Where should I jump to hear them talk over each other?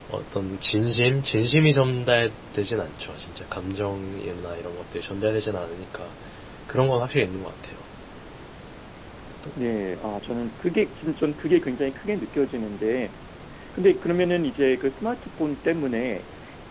none

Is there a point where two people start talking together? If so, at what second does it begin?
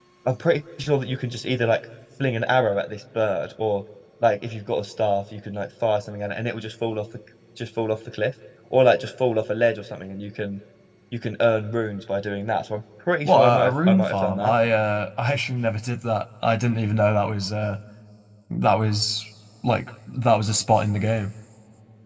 13 s

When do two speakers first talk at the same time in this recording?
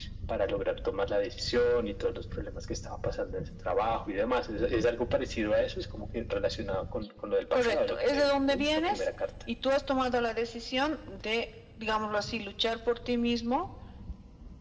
8 s

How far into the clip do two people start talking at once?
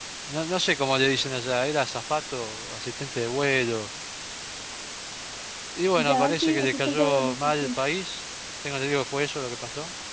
6 s

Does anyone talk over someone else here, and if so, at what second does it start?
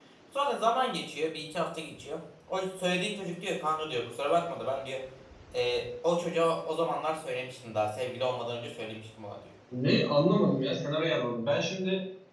none

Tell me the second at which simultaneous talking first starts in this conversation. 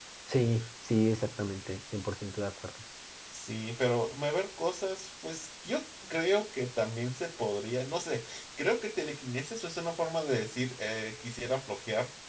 none

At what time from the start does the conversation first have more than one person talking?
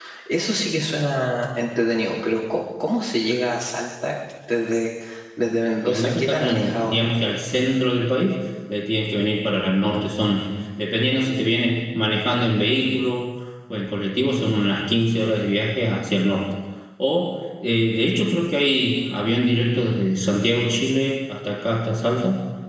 6 s

